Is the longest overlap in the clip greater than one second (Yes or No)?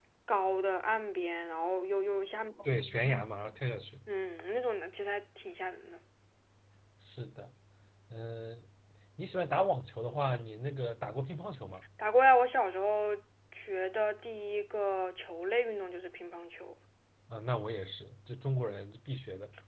No